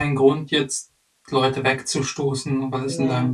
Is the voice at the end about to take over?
No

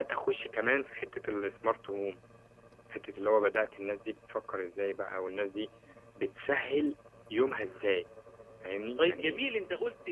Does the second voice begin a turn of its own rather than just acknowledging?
Yes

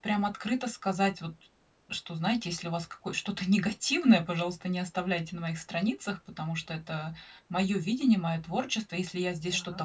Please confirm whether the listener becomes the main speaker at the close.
No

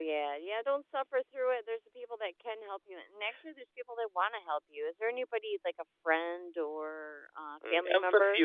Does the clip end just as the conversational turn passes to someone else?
Yes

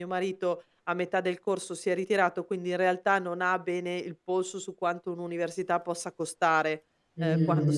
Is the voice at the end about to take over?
No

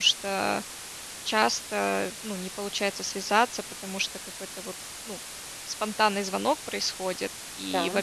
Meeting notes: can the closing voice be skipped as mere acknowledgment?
Yes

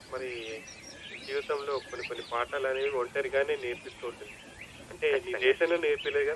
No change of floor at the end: Yes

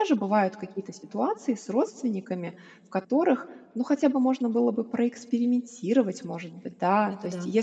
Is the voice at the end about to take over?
No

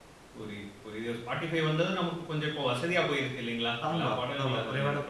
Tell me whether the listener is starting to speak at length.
Yes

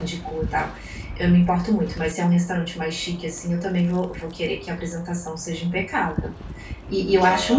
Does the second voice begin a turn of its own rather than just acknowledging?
No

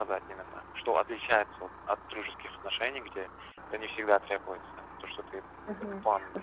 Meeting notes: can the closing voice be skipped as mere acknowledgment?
No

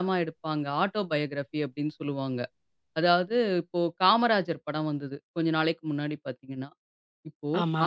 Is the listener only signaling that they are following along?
Yes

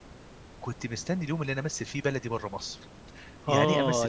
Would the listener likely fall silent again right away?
No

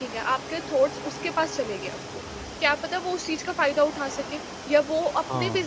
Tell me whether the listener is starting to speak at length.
No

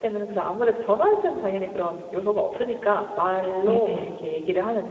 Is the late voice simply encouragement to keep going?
Yes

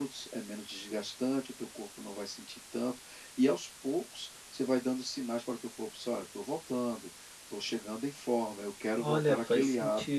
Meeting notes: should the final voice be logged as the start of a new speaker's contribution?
Yes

